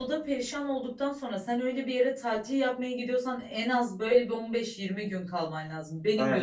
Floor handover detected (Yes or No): Yes